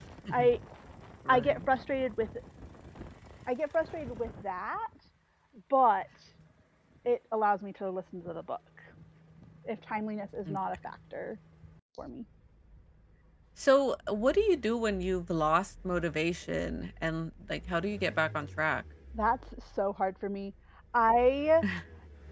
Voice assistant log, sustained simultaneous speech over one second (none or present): none